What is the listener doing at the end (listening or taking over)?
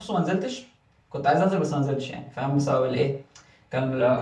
taking over